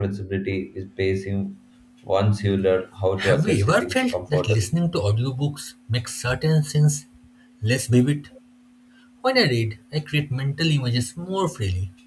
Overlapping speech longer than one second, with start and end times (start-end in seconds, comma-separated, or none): 3.3-4.7